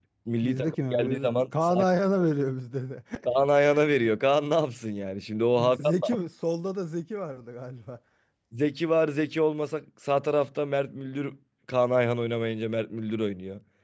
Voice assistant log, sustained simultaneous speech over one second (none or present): present